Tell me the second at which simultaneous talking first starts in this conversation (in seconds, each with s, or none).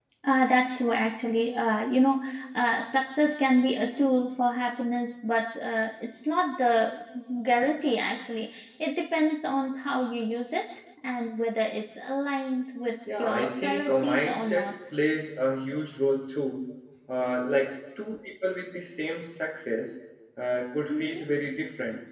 13.2 s